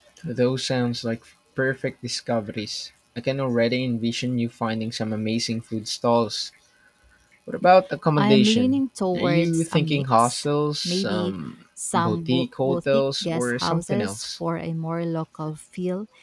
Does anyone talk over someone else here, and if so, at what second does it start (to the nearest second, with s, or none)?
8 s